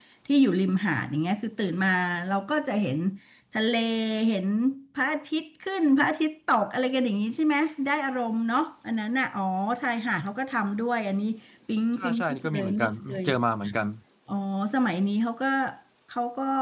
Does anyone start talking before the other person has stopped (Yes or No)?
Yes